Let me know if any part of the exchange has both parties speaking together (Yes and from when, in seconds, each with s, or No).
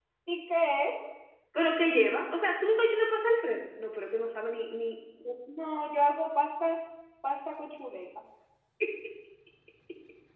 No